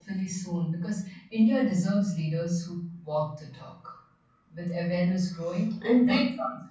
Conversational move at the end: listening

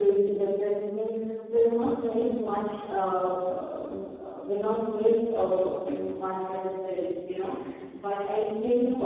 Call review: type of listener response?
listening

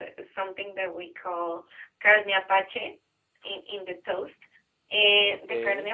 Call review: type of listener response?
listening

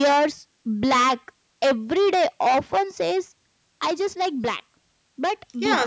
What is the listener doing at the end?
taking over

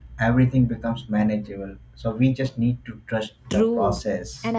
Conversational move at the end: taking over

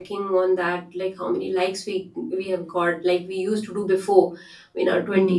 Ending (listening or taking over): listening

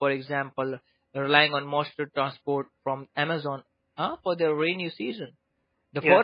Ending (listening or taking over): listening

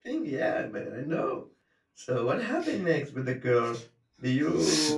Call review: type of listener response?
listening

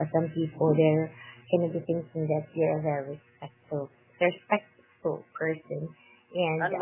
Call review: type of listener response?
taking over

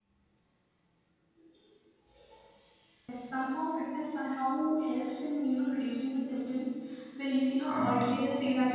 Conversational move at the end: listening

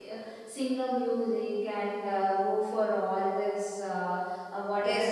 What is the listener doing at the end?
taking over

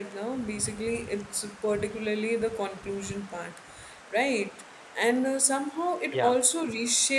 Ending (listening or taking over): listening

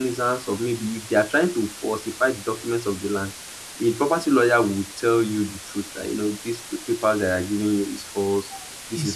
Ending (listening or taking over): listening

